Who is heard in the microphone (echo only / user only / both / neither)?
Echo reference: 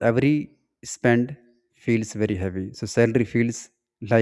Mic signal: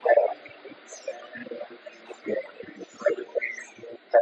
echo only